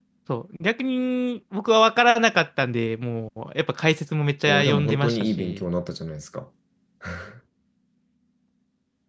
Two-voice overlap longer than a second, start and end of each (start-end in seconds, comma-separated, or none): 4.4-5.7